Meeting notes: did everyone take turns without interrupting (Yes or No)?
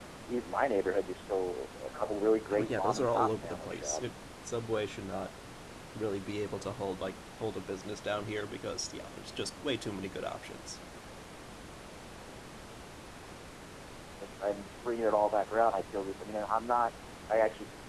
No